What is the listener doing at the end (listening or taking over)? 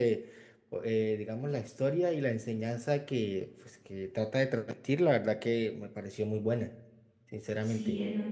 taking over